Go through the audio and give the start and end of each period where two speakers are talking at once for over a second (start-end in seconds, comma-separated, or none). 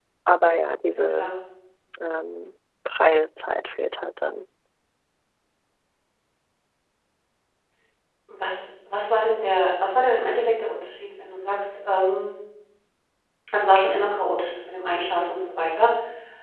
none